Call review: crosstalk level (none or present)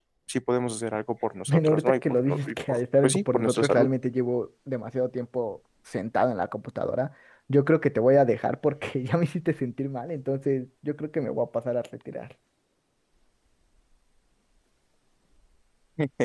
present